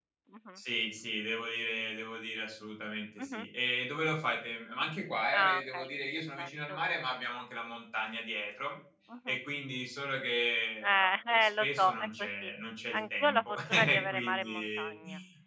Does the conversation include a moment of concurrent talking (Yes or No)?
Yes